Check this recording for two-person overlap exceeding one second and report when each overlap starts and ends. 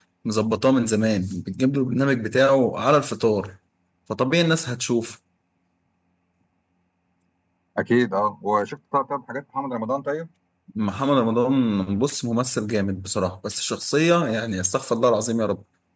none

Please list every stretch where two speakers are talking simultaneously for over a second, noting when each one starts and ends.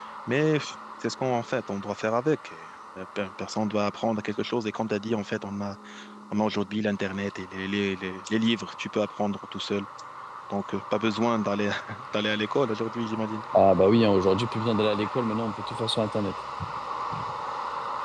none

